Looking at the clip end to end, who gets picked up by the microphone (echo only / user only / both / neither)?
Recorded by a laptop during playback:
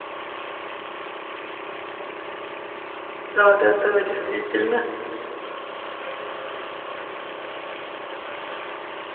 user only